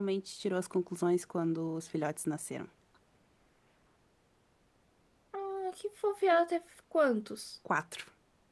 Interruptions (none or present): none